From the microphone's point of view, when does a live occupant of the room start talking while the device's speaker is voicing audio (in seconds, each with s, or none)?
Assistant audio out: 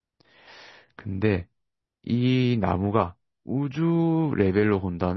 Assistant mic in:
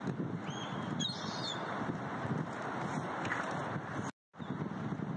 none